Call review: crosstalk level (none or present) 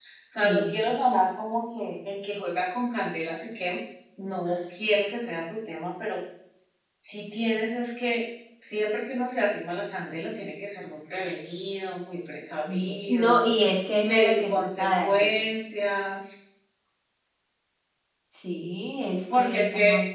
present